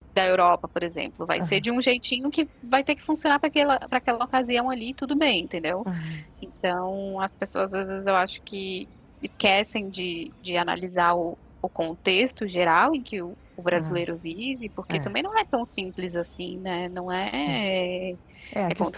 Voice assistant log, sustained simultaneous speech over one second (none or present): none